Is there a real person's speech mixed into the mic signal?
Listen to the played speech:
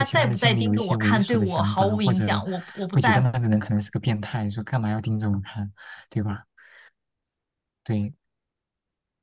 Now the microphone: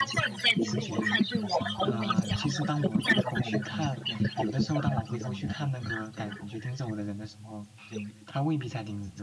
Yes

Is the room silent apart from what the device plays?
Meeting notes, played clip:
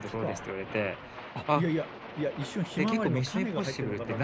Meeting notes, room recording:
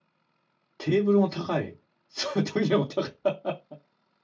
No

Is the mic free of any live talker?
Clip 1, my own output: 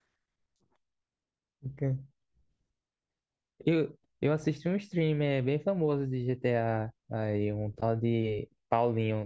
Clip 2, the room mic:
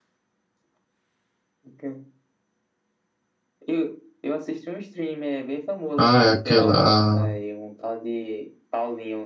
No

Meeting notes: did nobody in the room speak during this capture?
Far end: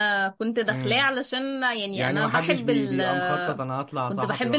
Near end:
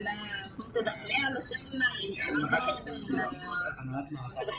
No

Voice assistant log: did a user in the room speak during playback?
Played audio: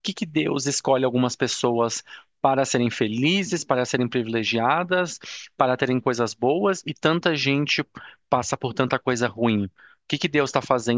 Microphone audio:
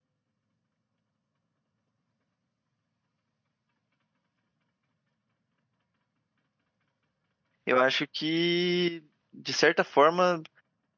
Yes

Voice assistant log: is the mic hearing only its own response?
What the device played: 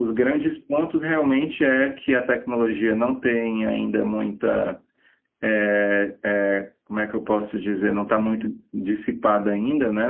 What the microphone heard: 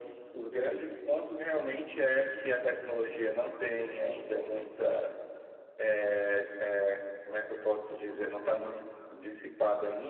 Yes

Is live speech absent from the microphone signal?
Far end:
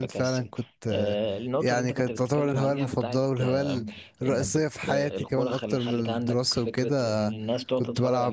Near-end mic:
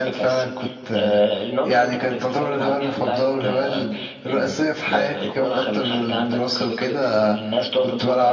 Yes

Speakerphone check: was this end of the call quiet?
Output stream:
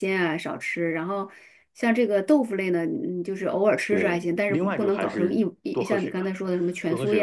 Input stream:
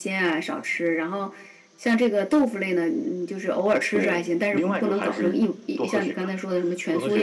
Yes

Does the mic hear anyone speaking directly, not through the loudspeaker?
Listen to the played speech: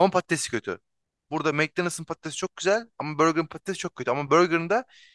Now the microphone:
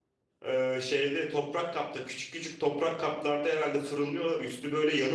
Yes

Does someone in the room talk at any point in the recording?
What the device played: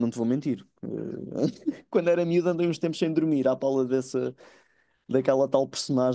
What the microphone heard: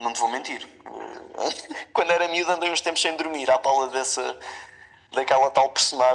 No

